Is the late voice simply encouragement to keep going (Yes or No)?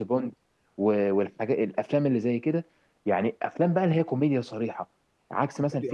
Yes